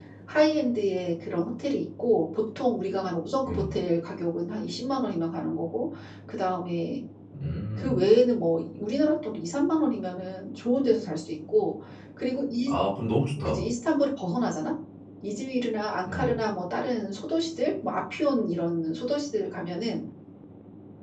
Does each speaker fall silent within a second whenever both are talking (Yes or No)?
Yes